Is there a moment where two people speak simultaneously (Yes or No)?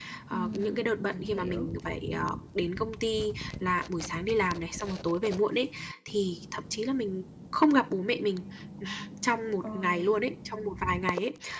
Yes